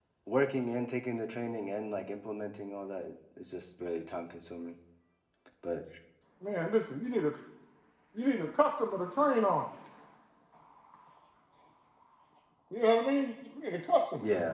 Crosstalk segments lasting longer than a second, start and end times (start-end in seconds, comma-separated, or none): none